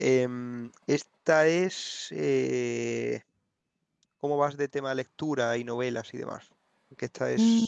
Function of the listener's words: taking over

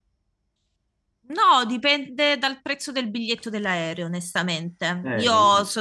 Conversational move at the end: listening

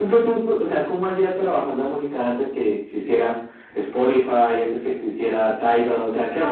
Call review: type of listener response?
taking over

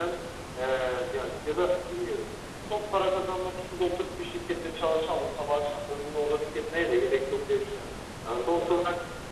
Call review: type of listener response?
listening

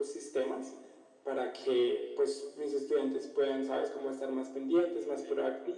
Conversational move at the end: listening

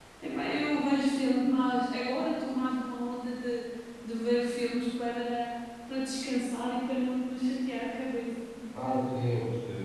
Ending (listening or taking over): taking over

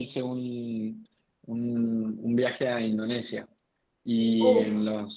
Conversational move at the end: listening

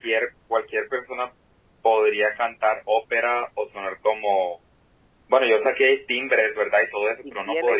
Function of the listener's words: taking over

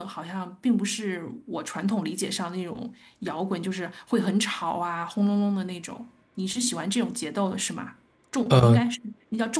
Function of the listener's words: listening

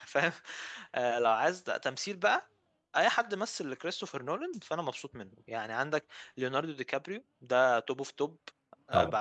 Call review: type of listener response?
listening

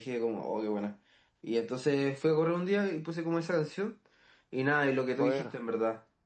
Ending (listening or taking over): listening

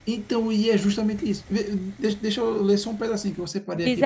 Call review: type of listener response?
taking over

